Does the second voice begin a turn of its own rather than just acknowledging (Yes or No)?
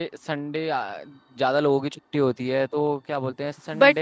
Yes